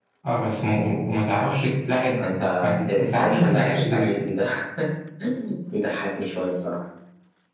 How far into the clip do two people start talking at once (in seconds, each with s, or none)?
2.9 s